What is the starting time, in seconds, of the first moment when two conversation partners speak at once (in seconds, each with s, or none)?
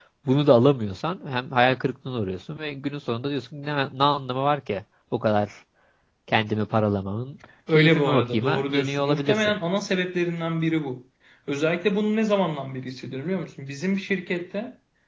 7.7 s